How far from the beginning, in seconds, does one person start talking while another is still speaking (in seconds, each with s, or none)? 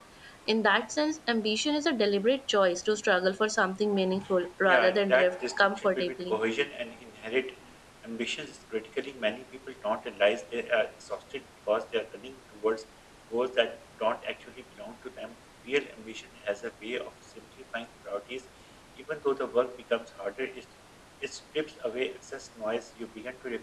4.6 s